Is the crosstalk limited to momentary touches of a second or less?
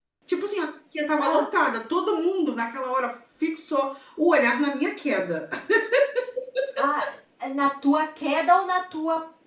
Yes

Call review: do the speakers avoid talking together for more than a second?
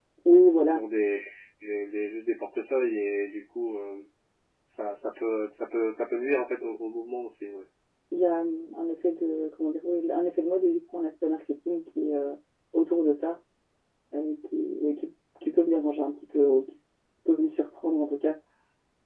Yes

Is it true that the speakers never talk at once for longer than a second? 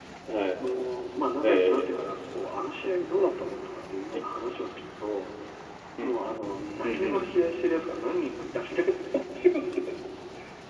Yes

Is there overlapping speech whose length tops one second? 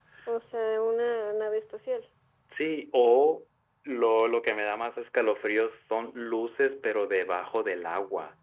No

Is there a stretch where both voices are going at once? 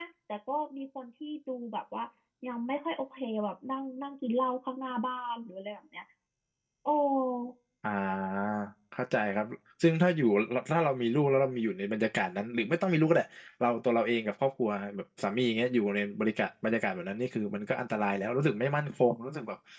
No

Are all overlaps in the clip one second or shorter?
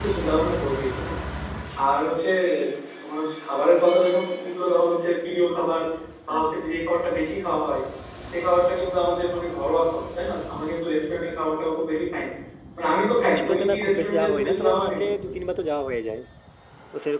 No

